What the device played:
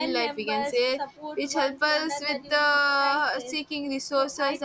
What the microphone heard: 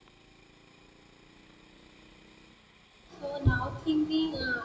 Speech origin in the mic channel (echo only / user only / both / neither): user only